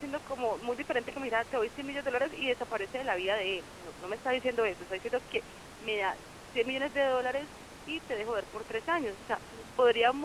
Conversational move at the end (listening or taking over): listening